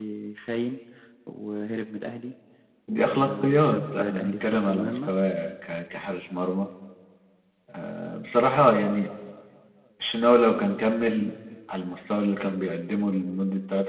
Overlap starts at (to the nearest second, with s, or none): 3 s